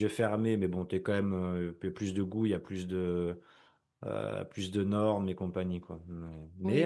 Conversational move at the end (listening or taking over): listening